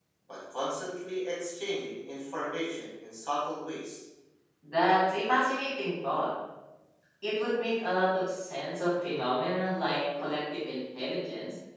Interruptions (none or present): none